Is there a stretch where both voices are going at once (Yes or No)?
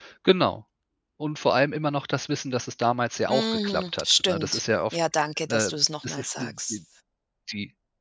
Yes